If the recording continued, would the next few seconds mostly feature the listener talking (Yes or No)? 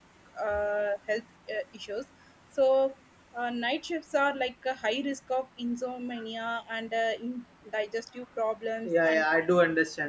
Yes